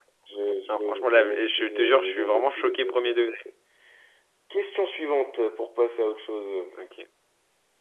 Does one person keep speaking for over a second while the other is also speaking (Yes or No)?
Yes